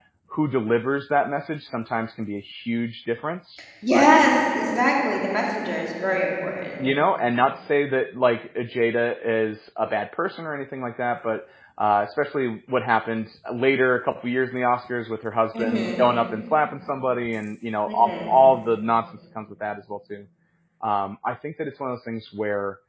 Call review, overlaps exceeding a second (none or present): none